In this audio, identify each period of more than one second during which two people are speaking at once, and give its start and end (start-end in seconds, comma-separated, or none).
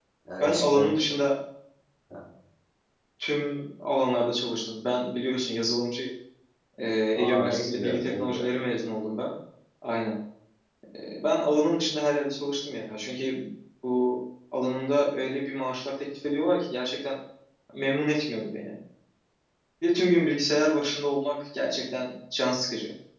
7.2-8.5